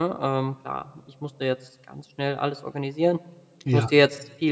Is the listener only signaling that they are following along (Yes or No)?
Yes